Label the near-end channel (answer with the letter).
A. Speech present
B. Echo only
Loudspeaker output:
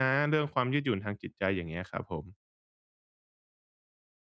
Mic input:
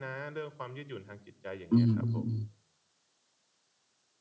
A